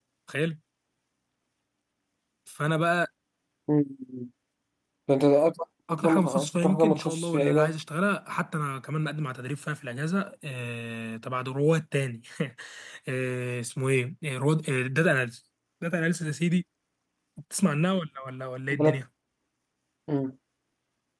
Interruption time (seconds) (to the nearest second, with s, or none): 6 s